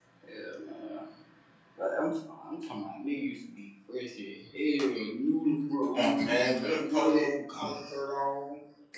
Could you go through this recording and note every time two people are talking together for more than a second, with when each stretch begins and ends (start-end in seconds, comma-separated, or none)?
5.9-7.3